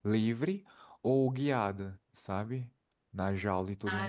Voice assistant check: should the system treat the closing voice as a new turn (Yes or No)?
Yes